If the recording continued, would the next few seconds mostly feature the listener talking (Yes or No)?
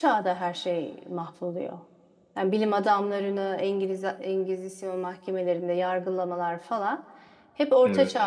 No